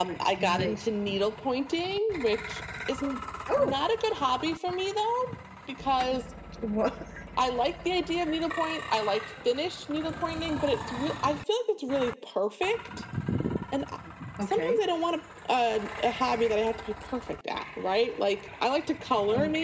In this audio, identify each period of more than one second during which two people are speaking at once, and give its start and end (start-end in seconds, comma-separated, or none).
none